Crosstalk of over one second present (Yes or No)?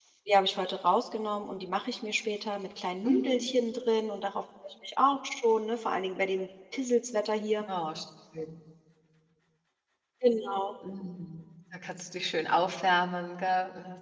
No